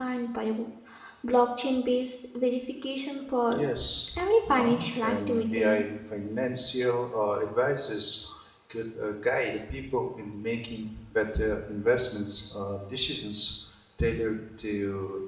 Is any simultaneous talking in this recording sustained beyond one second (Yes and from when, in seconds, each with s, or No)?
Yes, from 4.5 s